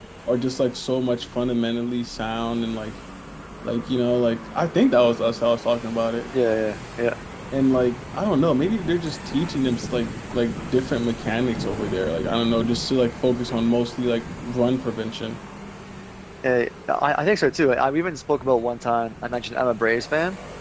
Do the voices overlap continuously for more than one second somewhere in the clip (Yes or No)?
No